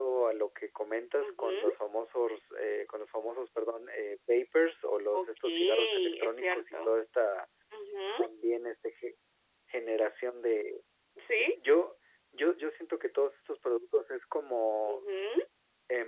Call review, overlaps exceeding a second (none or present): present